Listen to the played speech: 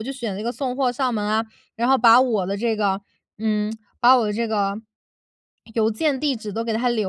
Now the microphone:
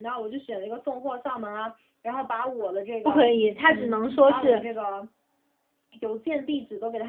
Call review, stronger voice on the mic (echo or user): user